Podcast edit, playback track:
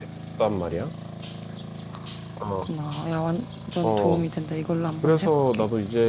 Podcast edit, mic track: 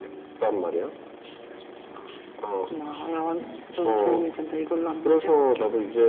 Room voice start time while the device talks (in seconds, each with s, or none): none